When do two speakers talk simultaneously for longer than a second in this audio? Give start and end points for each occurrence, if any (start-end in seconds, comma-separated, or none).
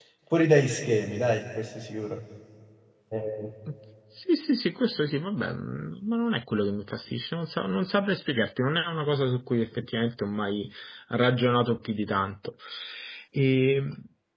none